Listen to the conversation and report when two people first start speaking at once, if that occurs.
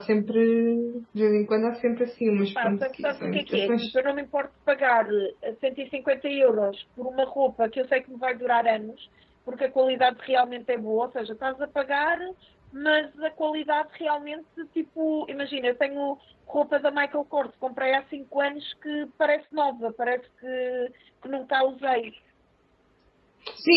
3 s

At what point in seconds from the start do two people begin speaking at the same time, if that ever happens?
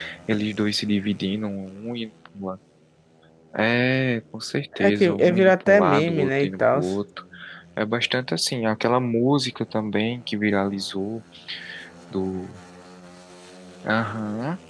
5 s

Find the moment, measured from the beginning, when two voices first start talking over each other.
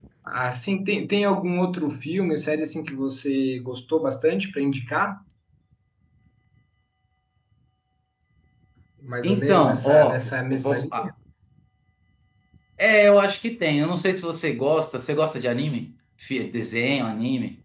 9 s

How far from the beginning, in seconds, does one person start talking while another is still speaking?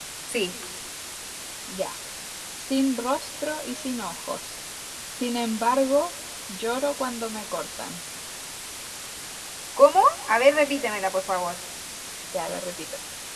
none

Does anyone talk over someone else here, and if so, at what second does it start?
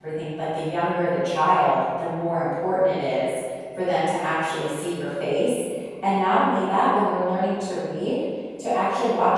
none

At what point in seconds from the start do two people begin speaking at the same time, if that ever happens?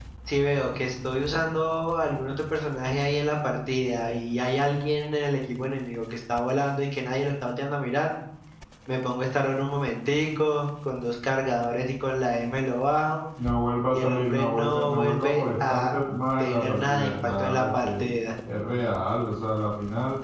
14 s

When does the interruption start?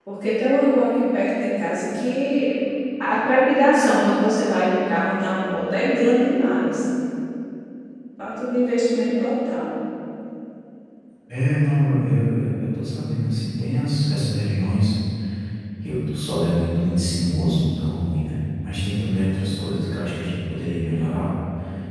none

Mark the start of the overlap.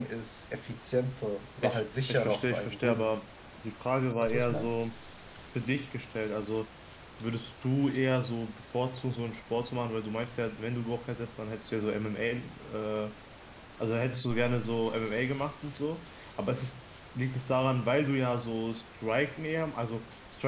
2 s

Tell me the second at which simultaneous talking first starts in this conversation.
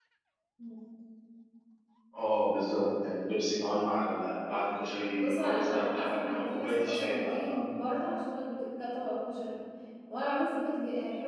5 s

